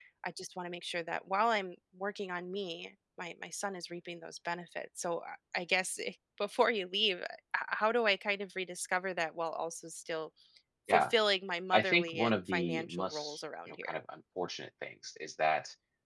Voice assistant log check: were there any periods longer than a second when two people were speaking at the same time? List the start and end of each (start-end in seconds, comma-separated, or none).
11.7-14.0